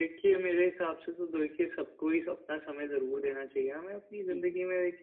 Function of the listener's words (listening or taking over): listening